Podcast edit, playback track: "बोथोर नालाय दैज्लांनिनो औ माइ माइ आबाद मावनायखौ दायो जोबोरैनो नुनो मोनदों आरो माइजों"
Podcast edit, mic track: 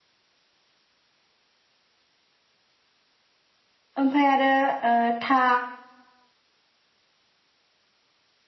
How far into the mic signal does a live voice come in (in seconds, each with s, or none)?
4.0 s